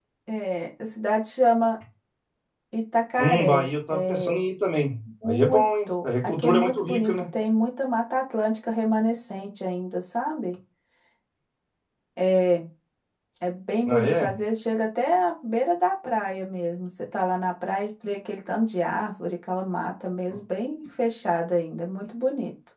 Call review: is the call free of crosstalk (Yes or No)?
No